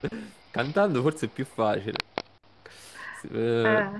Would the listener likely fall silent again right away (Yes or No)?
Yes